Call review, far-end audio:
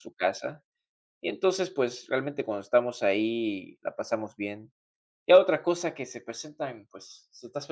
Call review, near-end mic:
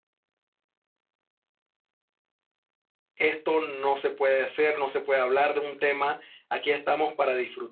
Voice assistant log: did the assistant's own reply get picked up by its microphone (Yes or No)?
No